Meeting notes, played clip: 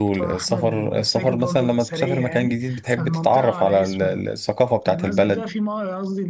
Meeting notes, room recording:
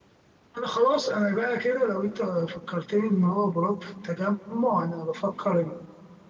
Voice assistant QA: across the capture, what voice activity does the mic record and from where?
user only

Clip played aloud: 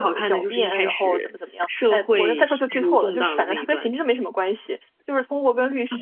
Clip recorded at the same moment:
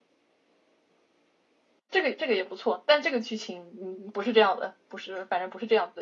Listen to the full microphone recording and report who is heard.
user only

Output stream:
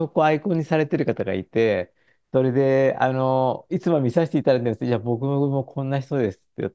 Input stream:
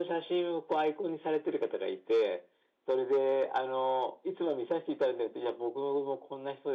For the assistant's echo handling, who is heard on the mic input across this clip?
echo only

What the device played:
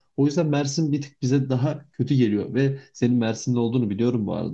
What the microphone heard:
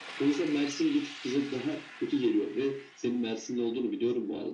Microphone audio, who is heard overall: echo only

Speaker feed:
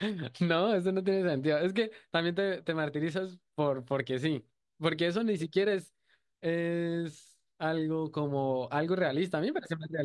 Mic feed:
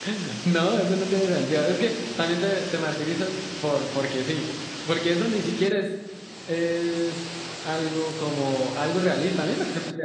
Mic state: echo only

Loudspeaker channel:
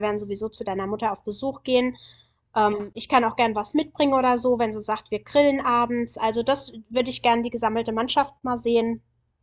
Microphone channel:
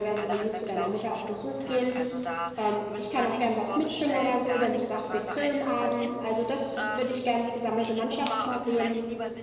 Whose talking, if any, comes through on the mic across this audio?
both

